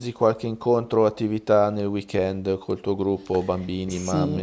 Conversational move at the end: taking over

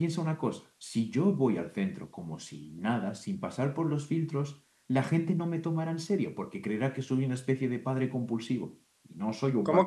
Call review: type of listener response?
taking over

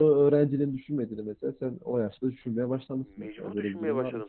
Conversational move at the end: taking over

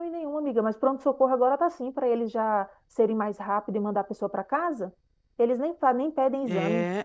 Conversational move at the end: taking over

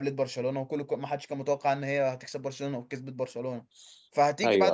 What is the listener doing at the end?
listening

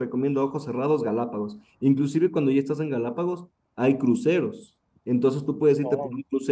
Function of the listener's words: listening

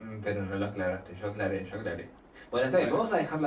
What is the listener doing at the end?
listening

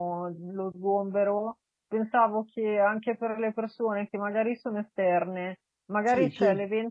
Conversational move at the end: listening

